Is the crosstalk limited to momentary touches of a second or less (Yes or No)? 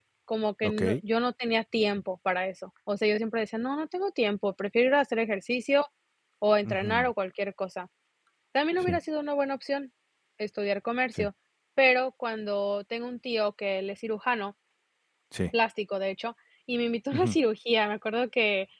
Yes